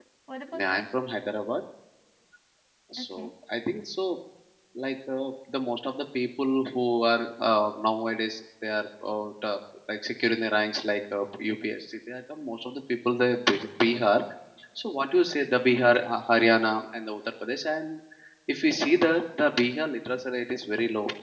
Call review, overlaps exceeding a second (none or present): none